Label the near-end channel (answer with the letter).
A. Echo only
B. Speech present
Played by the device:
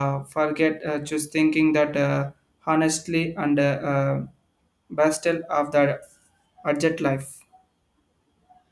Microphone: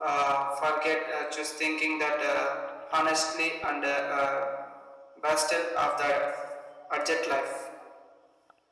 A